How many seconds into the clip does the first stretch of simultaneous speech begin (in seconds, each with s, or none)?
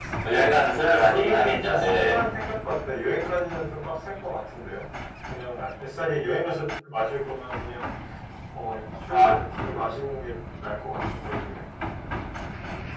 0.7 s